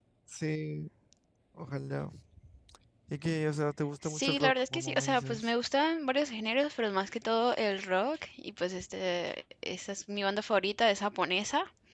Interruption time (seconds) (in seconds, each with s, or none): 4.0 s